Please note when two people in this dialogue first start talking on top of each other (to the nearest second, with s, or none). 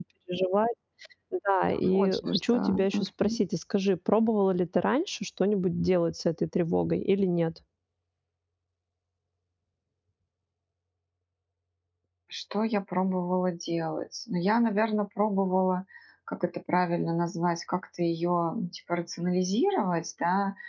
2 s